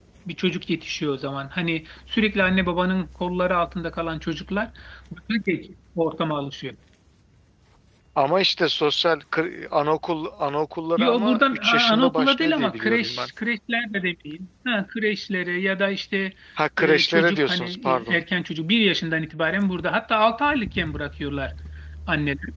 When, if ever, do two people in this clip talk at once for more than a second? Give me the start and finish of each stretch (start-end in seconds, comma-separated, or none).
11.0-13.3, 16.8-18.2